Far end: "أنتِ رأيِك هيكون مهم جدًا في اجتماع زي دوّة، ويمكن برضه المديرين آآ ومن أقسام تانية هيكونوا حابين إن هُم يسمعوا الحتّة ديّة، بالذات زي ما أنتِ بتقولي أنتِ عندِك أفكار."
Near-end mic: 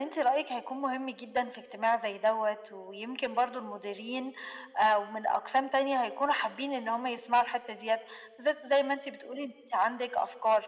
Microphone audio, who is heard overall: echo only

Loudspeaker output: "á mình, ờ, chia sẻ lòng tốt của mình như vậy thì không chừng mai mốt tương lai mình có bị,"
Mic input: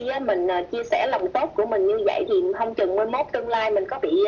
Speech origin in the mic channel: echo only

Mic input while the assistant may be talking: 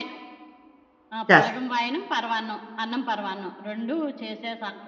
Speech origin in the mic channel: both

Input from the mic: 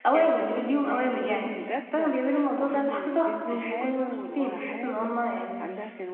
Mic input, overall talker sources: both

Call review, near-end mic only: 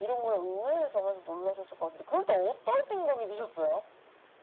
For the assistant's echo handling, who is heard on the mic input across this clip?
echo only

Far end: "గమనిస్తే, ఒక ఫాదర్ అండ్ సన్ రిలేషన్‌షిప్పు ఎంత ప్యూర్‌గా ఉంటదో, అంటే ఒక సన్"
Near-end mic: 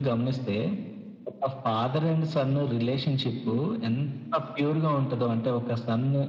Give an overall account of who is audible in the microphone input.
both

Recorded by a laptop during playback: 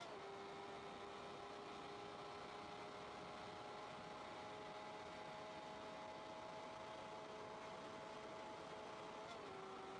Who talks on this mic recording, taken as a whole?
neither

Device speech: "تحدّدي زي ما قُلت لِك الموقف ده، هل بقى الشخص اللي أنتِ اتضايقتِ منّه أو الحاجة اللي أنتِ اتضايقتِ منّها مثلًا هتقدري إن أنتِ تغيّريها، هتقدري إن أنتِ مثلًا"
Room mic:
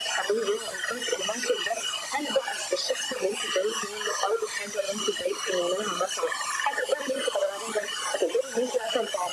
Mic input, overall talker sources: echo only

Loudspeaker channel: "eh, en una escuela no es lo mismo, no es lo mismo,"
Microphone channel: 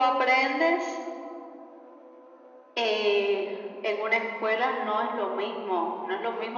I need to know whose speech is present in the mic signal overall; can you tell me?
echo only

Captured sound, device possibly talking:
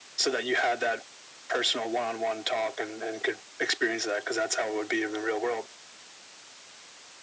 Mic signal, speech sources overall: echo only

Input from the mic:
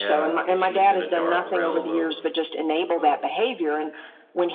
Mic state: both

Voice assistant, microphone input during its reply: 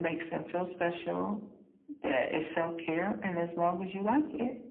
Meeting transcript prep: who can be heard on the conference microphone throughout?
echo only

